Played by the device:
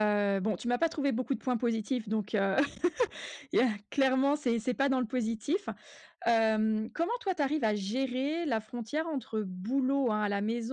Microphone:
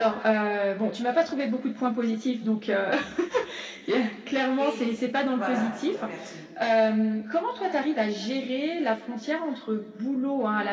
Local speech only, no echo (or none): Oui voilà, heu, merci.